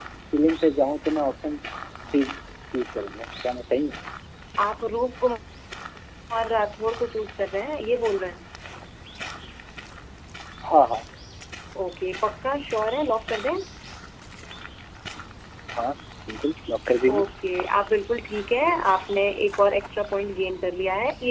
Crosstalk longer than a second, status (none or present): none